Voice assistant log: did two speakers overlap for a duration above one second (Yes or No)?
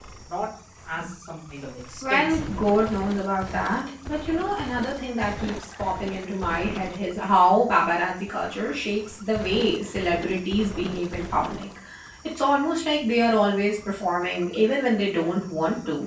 No